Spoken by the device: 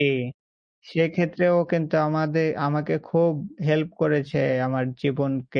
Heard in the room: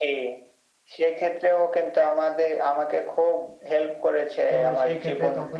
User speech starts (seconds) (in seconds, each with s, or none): 4.5 s